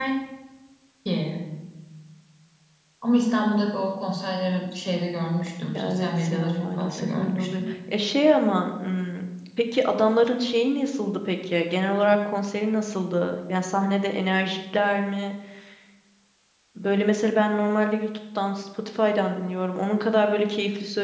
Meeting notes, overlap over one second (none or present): present